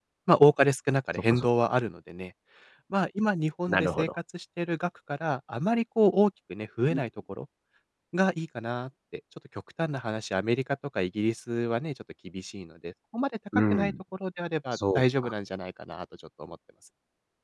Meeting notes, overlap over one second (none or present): none